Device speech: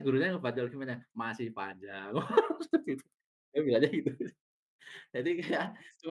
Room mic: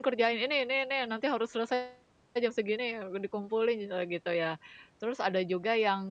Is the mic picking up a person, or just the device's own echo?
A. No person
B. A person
B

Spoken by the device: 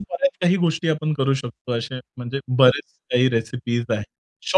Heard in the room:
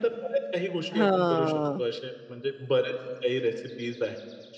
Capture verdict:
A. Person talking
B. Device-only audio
A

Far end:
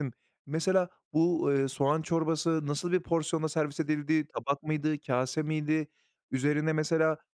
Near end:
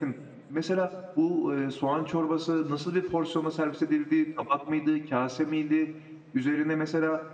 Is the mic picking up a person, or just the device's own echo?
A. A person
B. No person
B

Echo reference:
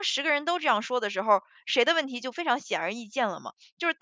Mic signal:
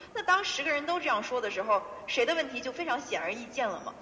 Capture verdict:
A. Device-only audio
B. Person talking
A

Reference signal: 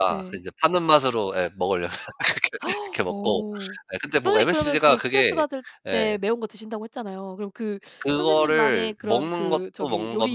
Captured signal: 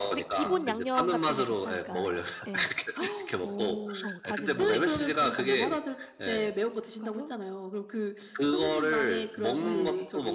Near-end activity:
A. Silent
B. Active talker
B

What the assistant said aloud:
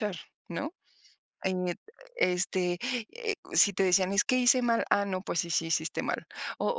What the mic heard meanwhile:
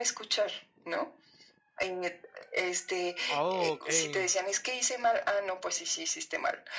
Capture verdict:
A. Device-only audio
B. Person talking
B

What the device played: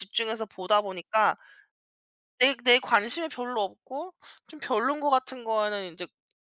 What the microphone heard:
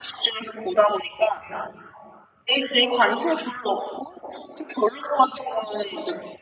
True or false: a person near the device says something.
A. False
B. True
A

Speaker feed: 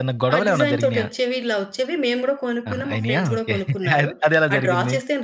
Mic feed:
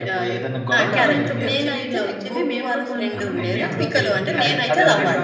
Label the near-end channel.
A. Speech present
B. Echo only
A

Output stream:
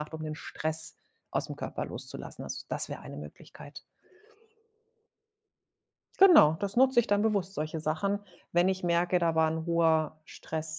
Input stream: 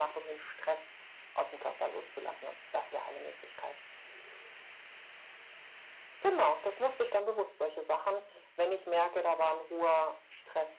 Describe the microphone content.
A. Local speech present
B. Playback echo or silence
B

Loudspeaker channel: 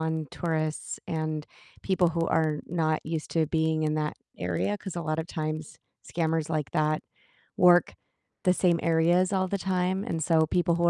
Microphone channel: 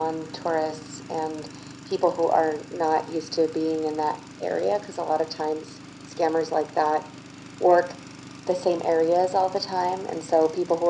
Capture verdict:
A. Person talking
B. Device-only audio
B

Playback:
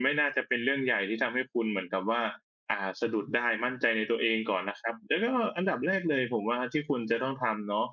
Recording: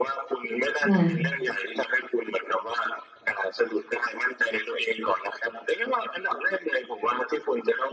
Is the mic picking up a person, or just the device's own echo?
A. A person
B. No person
A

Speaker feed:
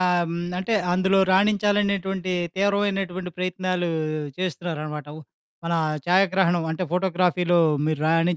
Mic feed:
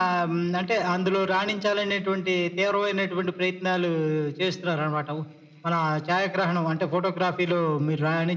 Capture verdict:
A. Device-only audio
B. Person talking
A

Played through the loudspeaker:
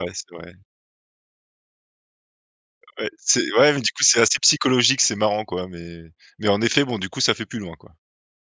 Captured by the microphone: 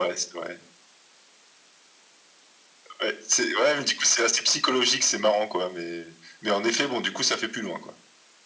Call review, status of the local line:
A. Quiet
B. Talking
A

